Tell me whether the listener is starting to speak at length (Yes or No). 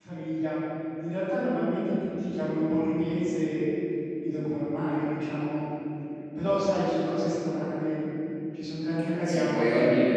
Yes